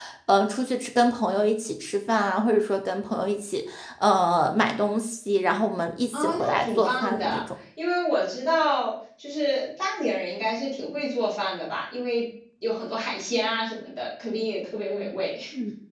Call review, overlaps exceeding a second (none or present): present